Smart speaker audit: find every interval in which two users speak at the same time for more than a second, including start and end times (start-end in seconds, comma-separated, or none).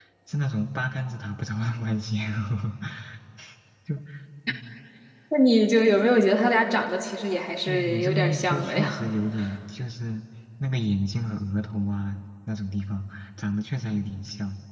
7.7-8.9